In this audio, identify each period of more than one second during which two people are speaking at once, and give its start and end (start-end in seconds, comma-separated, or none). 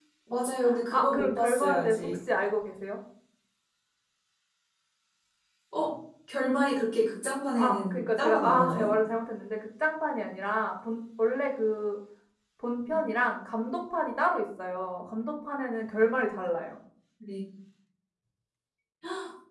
0.9-2.2, 7.6-8.9